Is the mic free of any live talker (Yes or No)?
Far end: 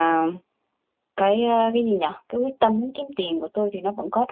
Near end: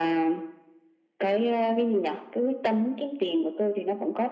Yes